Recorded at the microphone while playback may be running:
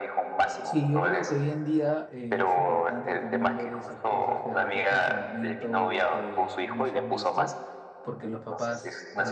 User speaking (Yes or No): Yes